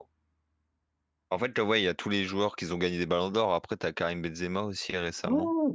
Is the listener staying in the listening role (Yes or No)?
No